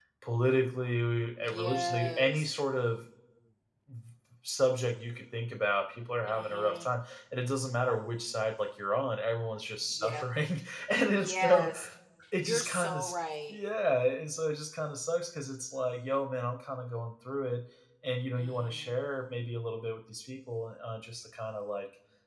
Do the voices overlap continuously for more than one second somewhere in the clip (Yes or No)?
Yes